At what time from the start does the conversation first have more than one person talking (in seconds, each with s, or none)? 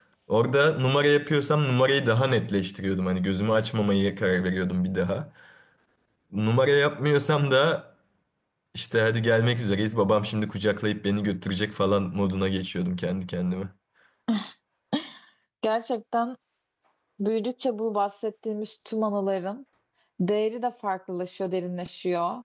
none